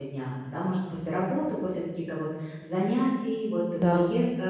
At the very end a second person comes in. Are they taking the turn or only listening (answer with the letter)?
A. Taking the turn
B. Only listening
B